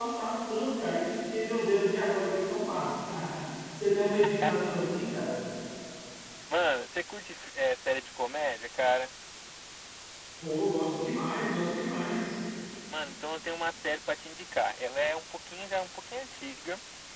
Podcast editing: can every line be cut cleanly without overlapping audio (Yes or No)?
Yes